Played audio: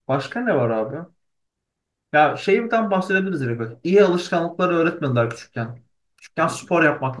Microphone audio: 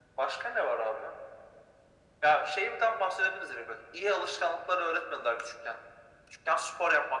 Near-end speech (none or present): none